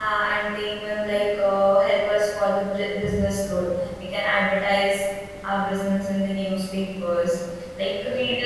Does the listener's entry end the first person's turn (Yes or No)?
No